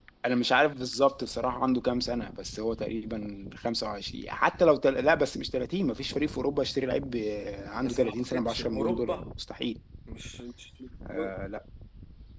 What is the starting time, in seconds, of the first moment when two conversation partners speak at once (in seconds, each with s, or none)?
7.8 s